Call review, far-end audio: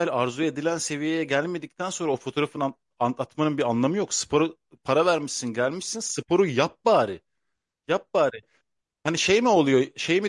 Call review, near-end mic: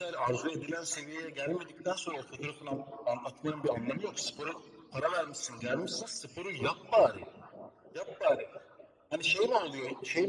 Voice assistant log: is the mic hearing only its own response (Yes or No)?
Yes